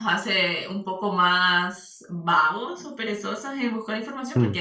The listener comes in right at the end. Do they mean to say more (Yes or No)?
No